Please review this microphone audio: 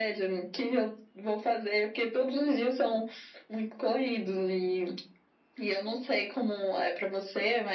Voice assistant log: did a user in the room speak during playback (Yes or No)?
No